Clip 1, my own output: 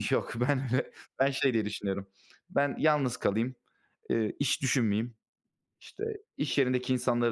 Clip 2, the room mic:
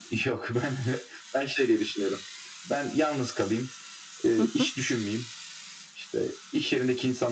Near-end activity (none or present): present